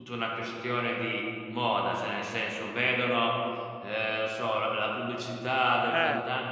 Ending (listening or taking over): listening